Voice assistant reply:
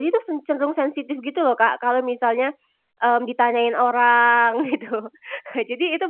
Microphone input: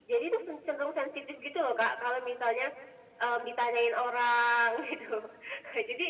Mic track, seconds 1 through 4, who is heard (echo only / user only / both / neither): echo only